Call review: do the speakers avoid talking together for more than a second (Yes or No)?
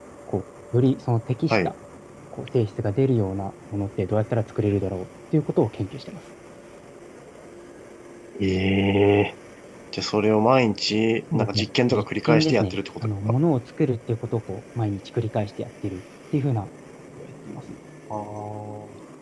No